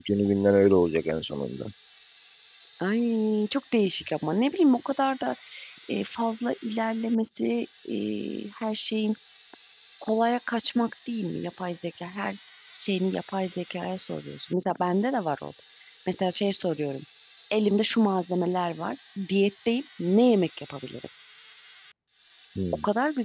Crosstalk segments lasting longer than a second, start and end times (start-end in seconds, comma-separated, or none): none